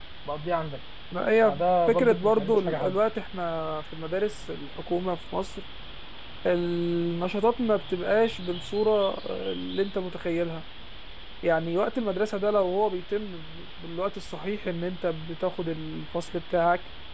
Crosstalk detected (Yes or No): Yes